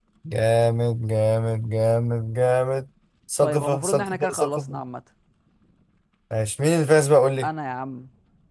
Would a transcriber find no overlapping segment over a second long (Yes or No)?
No